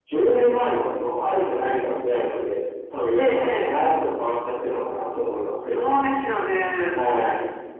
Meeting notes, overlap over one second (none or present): none